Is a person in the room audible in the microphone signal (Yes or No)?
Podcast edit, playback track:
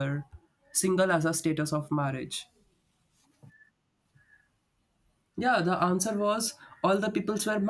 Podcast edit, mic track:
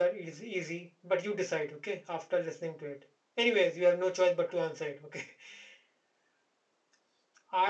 Yes